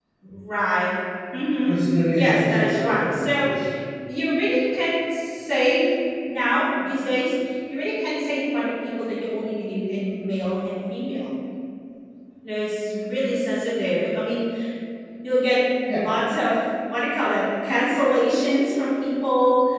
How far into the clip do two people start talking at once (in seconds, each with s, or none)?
2.1 s